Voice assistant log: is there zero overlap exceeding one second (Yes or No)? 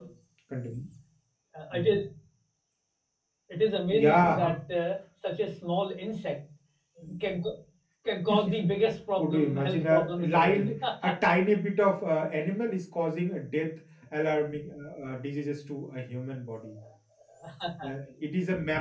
No